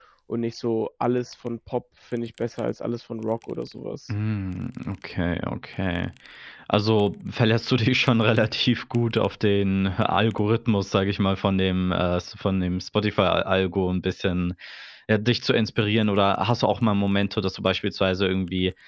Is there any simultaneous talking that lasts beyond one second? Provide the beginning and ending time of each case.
none

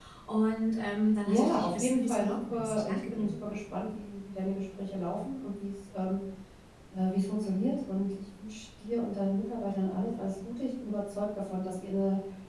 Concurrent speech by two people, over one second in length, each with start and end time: 1.2-3.4

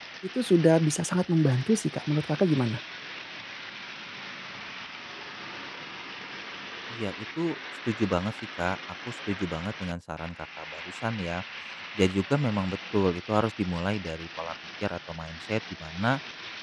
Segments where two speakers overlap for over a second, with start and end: none

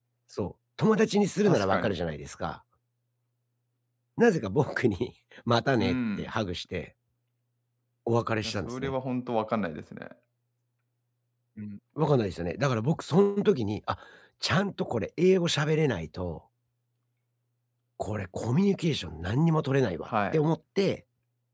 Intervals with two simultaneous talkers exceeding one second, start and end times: none

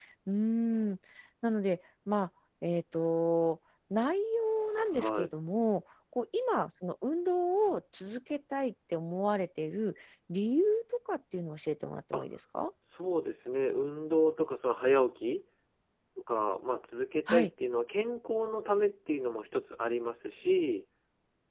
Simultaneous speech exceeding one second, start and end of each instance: none

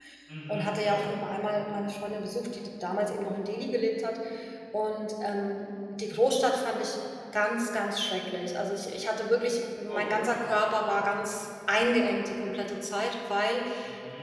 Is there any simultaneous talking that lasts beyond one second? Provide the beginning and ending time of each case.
none

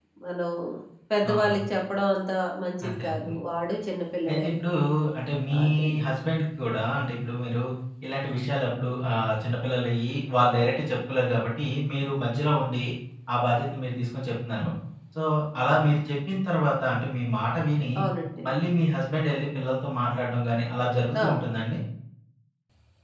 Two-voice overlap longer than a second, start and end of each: none

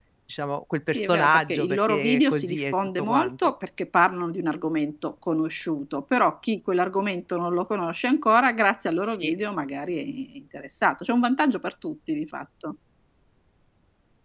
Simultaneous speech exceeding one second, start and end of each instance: 0.9-3.5

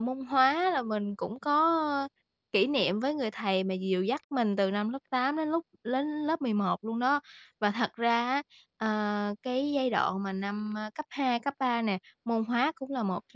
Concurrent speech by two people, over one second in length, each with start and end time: none

